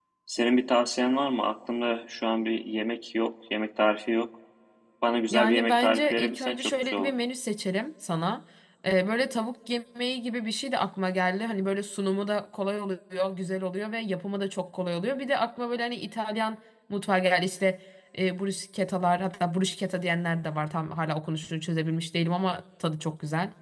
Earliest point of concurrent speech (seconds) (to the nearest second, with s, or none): 5 s